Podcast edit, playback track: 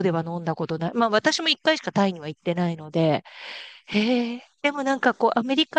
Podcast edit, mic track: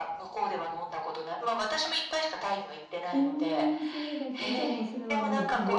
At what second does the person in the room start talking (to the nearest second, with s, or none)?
3 s